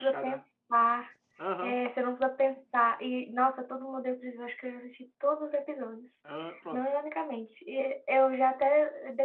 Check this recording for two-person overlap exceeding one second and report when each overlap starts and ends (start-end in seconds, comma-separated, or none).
none